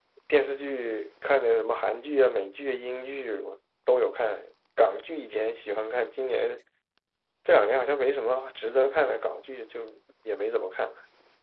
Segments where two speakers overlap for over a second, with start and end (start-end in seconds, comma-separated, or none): none